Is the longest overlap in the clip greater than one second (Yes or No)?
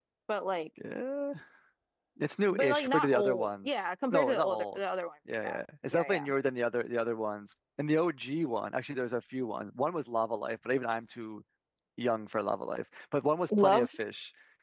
Yes